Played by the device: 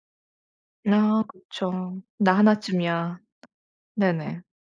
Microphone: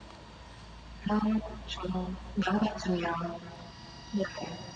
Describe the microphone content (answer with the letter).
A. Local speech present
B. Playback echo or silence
B